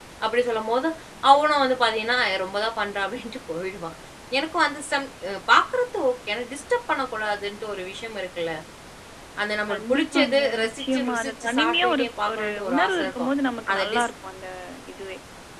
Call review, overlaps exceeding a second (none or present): present